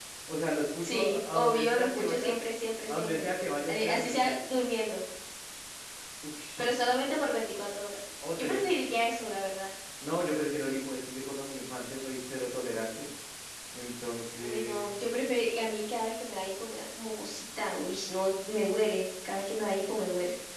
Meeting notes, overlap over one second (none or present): present